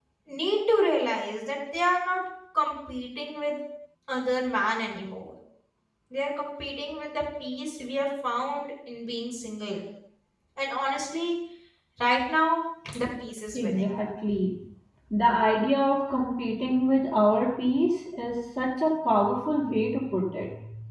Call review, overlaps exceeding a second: none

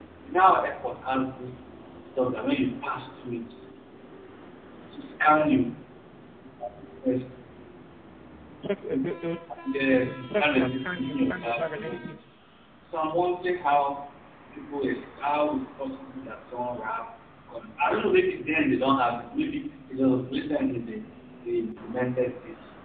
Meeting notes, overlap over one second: present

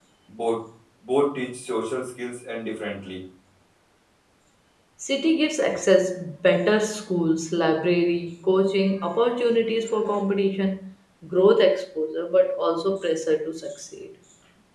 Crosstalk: none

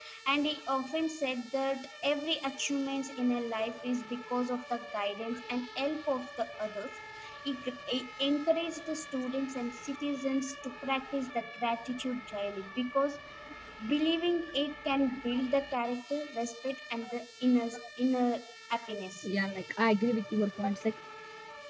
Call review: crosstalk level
none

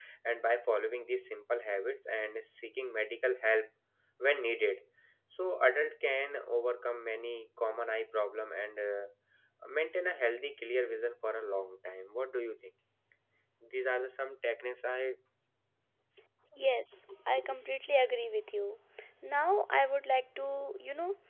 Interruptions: none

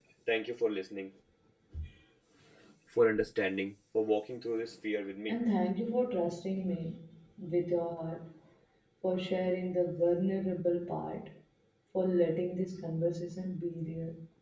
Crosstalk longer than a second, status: none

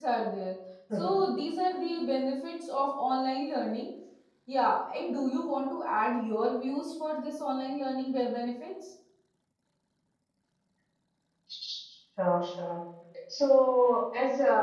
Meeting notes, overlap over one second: none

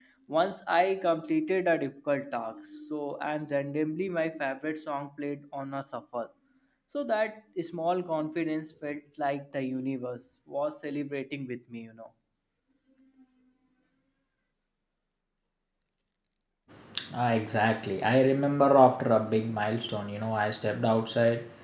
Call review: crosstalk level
none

